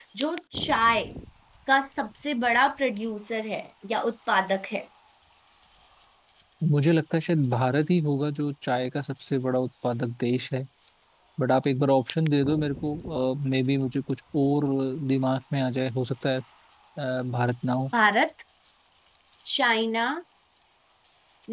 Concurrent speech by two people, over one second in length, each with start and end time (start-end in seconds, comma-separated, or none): none